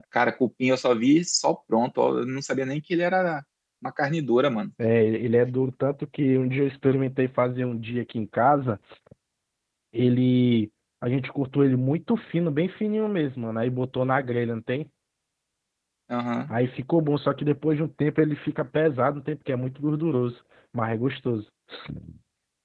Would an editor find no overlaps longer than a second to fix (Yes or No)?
Yes